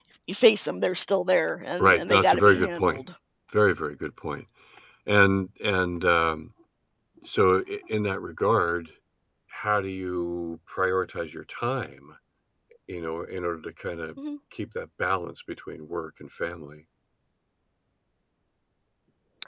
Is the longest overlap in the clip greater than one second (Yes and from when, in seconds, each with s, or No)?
Yes, from 1.8 s